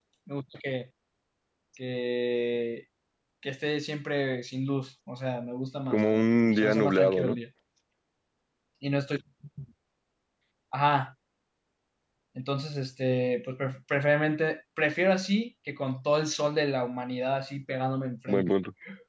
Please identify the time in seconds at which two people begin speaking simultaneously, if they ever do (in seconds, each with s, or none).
5.9 s